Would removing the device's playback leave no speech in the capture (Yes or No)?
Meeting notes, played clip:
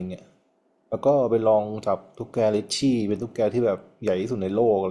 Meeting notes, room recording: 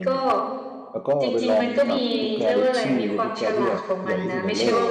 No